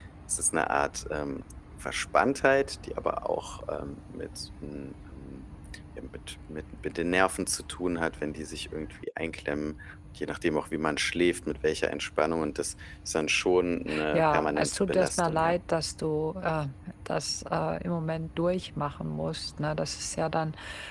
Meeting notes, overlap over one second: present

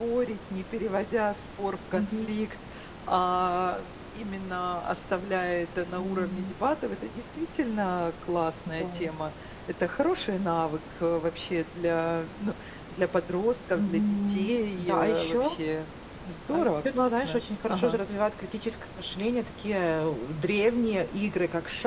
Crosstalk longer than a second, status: present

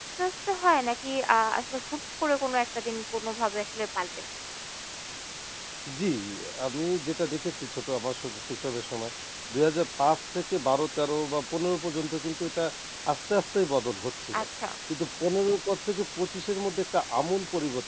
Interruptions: none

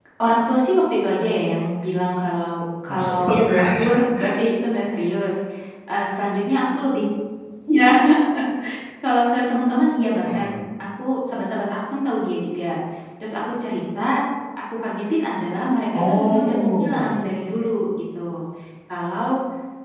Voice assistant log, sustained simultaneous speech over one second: present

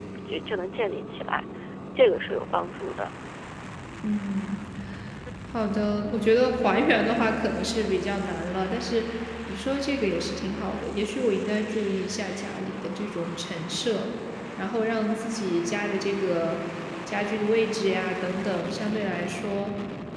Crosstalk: none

